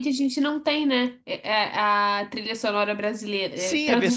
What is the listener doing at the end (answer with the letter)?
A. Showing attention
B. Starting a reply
B